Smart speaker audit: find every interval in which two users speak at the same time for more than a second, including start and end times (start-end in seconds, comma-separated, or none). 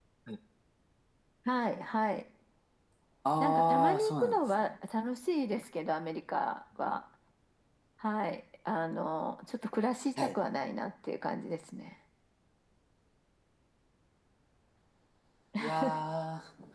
3.4-4.7